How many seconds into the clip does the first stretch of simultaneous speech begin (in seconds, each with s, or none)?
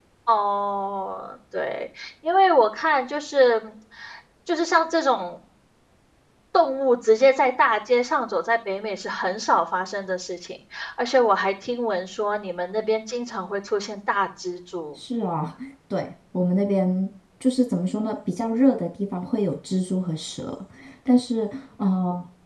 none